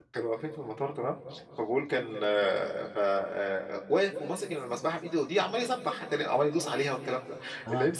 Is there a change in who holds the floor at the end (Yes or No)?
No